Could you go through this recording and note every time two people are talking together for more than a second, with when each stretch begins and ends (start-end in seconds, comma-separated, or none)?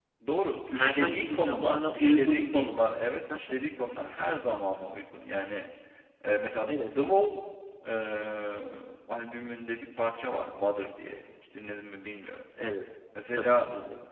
0.7-2.7